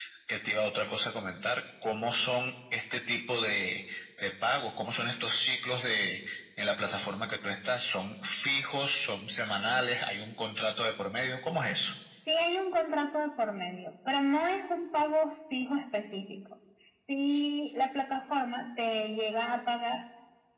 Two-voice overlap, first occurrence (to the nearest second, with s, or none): none